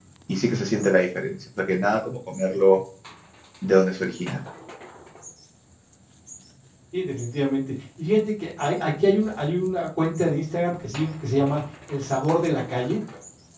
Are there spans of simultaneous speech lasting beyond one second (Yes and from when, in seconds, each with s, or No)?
No